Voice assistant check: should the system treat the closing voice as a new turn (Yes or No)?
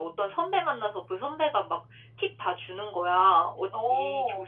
No